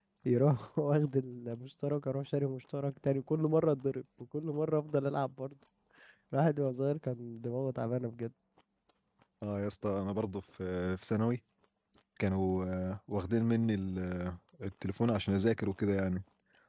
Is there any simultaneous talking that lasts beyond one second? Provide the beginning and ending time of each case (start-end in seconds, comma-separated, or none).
none